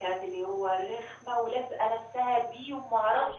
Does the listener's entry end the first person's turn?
No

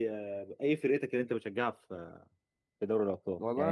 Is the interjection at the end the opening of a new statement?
Yes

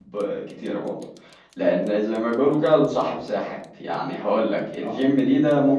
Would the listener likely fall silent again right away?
Yes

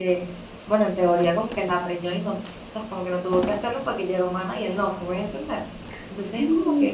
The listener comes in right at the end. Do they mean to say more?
No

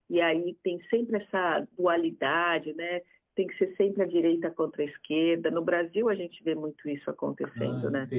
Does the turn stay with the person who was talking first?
No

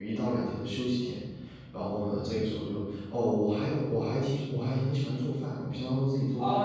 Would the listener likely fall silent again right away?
No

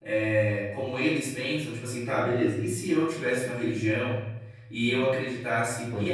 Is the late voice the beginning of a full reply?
No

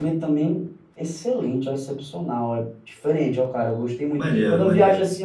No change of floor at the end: Yes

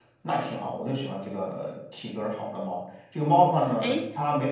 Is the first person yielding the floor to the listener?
No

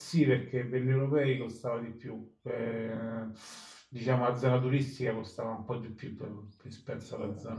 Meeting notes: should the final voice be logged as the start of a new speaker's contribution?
No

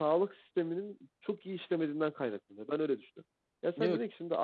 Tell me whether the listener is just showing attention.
Yes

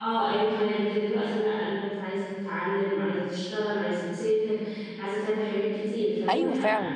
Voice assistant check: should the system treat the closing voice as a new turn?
Yes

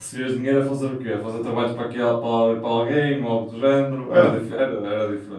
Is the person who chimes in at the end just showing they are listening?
Yes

